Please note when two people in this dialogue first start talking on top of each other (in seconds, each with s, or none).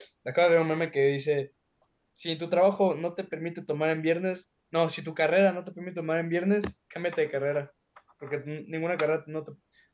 none